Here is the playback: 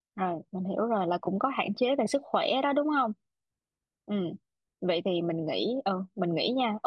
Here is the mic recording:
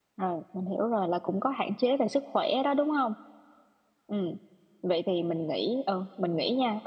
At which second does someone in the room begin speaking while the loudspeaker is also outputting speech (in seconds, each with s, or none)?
none